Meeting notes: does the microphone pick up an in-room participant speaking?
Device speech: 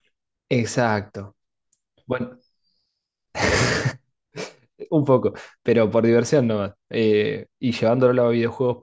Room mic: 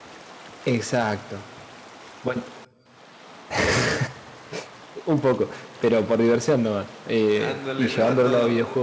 Yes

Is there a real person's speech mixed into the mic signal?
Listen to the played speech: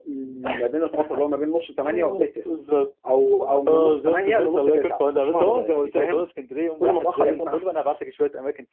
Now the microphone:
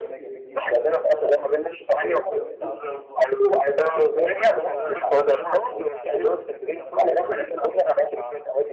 Yes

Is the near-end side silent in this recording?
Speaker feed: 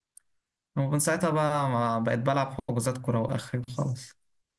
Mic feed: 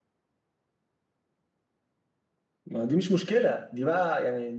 No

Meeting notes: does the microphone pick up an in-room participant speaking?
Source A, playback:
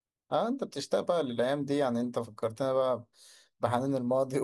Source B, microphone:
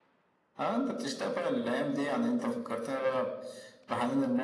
No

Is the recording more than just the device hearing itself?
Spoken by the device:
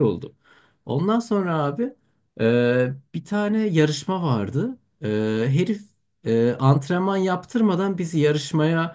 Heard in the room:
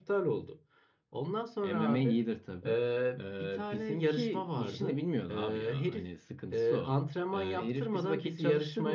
Yes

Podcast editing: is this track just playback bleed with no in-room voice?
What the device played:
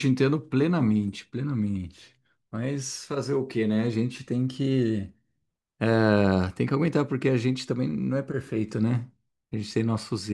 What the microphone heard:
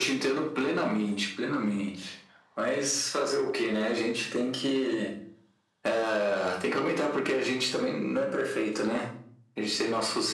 Yes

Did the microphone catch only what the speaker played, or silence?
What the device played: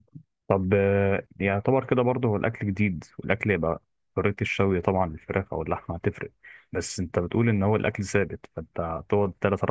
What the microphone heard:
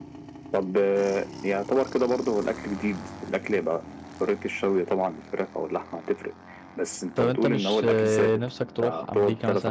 No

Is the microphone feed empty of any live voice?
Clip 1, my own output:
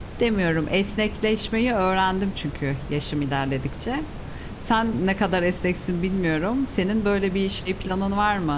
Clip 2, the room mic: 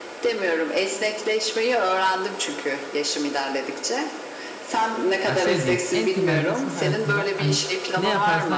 No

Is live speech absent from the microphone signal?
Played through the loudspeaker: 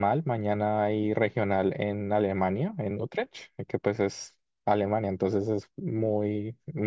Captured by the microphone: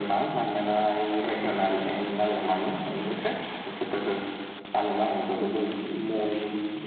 Yes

